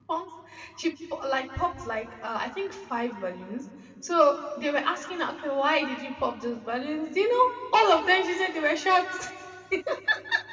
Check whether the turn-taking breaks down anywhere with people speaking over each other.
No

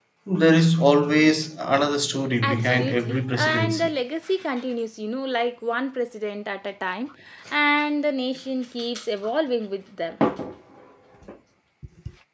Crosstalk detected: Yes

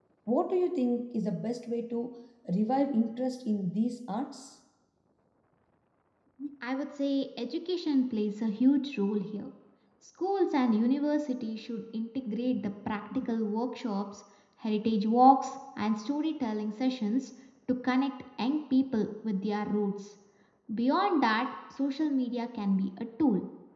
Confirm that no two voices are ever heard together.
Yes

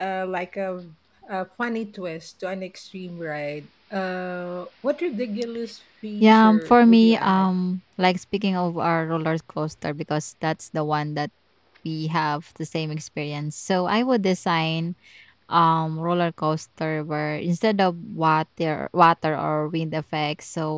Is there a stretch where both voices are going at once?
Yes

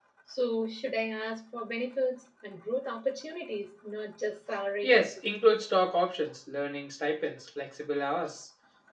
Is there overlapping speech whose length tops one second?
No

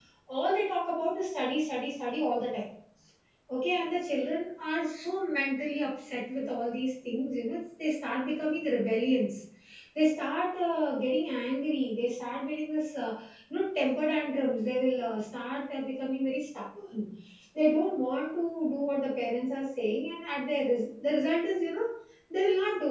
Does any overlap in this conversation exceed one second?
No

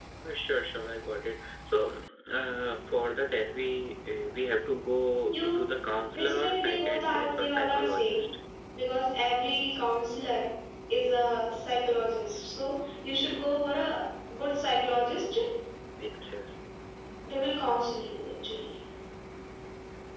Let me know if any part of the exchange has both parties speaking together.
Yes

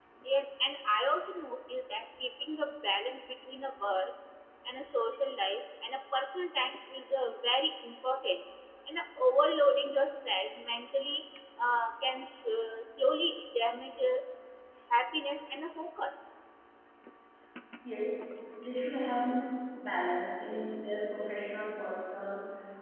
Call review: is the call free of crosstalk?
Yes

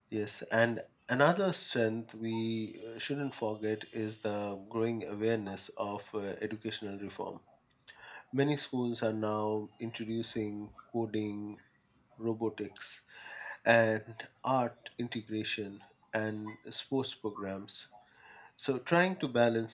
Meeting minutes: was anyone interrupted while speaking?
No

